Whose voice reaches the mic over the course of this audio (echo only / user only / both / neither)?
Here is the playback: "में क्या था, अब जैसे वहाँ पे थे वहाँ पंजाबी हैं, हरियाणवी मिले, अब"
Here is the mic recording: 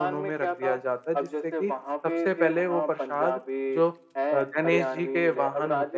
both